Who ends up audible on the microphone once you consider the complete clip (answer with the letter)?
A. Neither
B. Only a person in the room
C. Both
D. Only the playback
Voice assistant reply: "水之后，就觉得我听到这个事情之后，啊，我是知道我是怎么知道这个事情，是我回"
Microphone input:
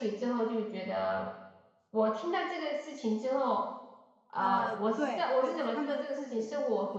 C